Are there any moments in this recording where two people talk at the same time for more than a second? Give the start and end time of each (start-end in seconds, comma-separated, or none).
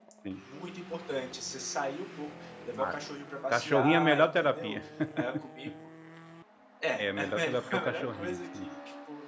3.5-4.8, 7.0-8.7